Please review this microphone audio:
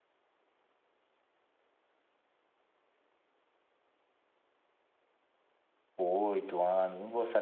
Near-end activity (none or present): present